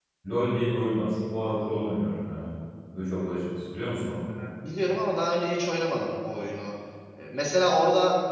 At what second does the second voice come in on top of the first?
none

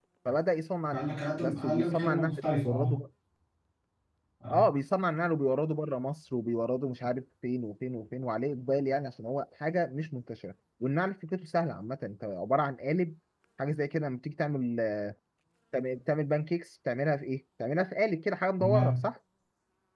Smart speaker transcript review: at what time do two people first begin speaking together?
0.9 s

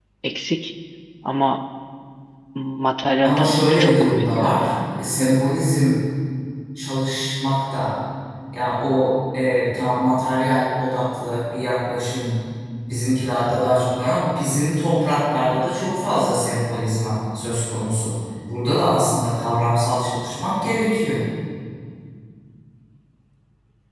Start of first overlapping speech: 3.2 s

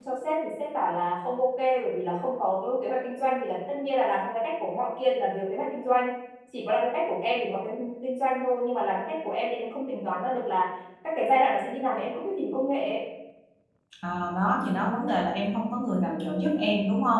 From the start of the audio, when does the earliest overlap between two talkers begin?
none

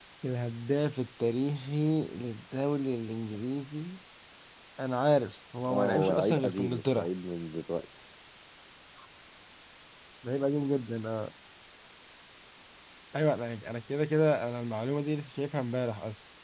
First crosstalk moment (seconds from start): 5.7 s

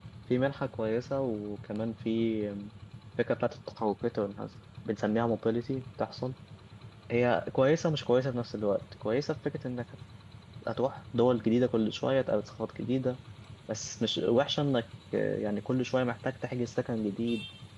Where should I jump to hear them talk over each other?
none

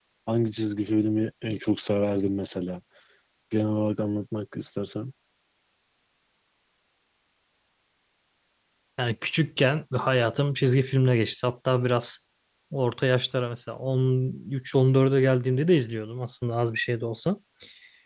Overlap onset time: none

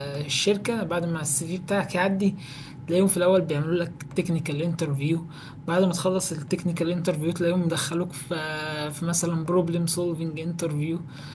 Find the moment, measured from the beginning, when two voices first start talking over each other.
none

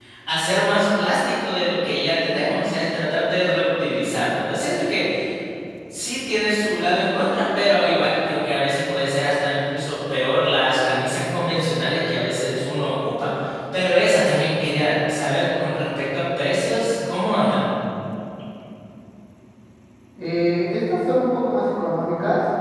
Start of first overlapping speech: none

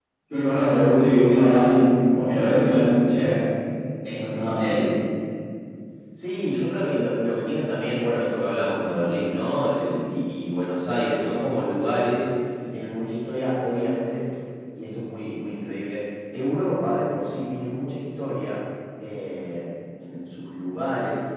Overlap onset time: none

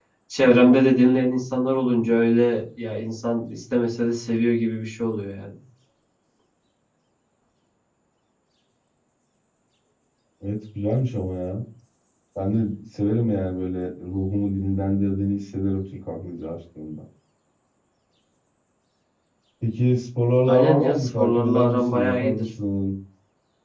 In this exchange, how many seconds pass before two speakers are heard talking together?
20.5 s

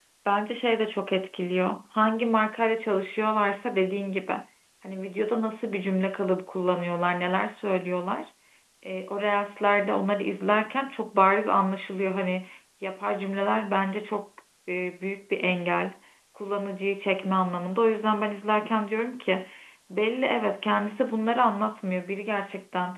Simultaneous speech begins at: none

